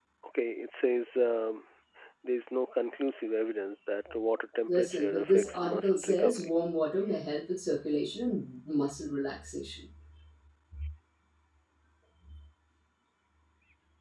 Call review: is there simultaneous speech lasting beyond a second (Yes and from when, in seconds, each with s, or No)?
Yes, from 4.7 s